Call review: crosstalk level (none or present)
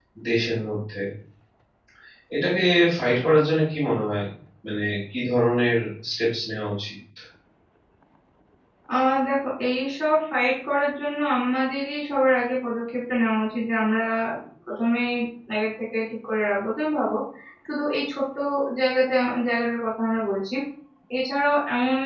none